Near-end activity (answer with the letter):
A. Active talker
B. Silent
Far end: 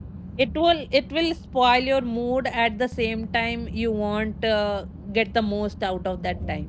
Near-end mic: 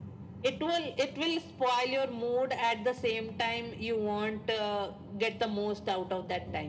B